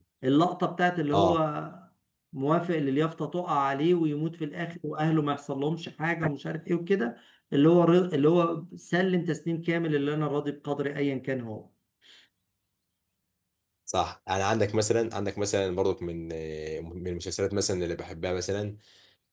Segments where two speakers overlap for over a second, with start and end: none

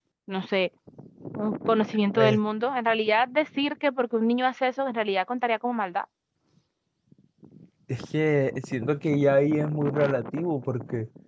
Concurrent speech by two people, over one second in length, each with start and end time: none

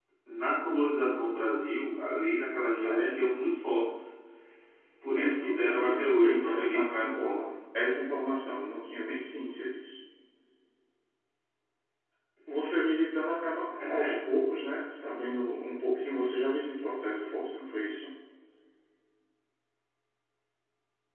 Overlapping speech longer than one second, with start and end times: 5.1-7.4

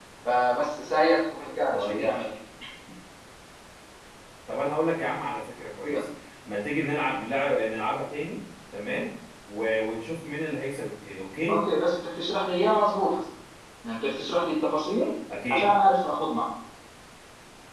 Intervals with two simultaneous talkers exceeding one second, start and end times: none

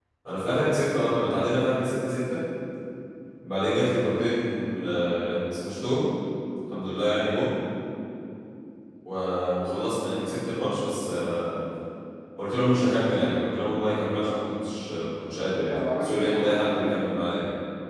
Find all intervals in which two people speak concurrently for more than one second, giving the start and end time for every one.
15.4-16.9

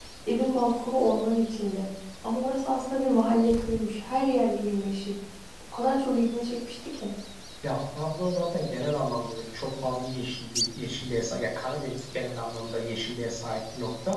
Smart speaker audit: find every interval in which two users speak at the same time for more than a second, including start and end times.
none

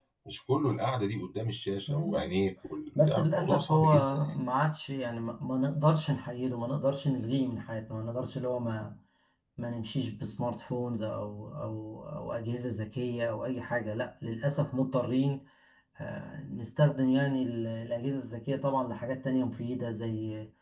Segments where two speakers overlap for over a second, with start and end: 3.1-4.3

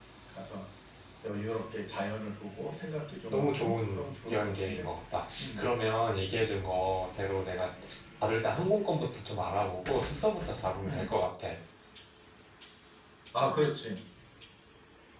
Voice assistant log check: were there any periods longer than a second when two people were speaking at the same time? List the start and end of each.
3.3-4.9

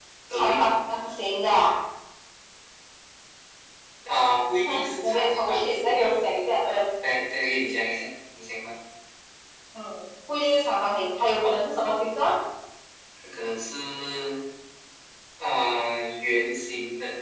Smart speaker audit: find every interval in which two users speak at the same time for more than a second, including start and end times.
4.6-6.1

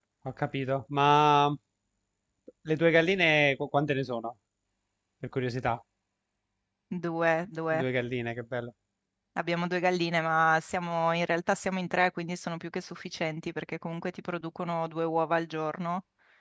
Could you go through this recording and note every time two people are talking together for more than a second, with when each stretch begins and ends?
none

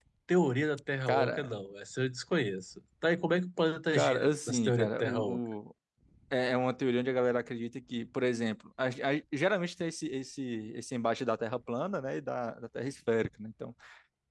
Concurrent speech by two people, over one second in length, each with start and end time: 3.9-5.4

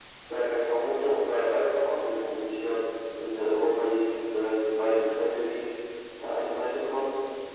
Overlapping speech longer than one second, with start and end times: none

